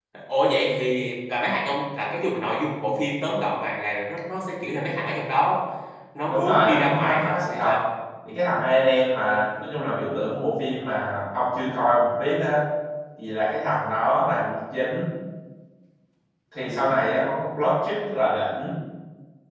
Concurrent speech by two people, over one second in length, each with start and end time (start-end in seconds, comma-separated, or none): 6.3-7.8